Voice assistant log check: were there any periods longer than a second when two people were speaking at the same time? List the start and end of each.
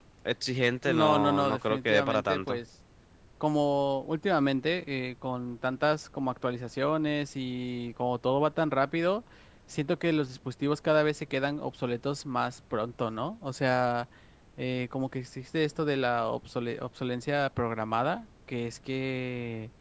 0.8-2.6

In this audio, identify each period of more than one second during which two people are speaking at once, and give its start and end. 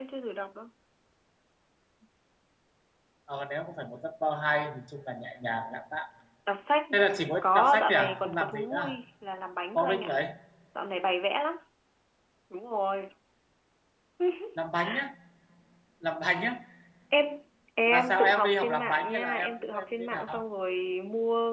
7.4-9.0, 17.9-20.5

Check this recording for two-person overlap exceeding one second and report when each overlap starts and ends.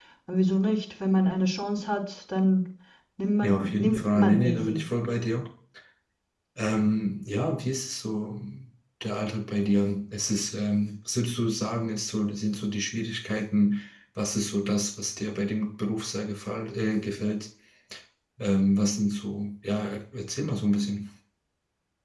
3.4-4.8

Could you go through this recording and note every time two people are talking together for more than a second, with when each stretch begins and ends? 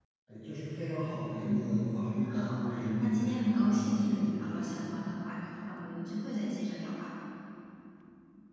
2.0-4.8

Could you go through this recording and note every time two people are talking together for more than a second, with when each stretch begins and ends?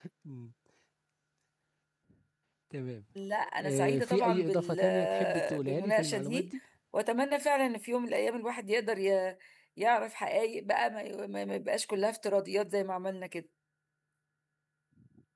3.6-6.5

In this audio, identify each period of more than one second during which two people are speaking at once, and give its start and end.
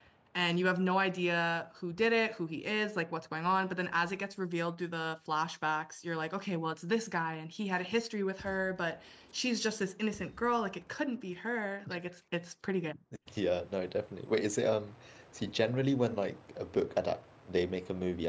none

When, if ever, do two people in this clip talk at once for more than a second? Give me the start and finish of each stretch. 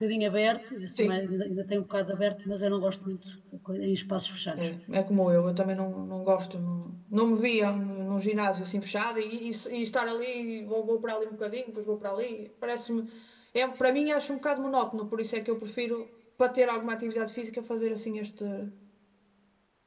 none

